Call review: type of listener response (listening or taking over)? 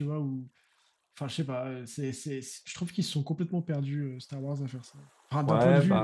taking over